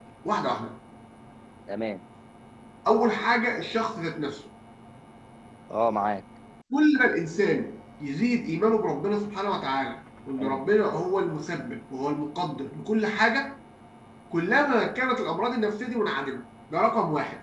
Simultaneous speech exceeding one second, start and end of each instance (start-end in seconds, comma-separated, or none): none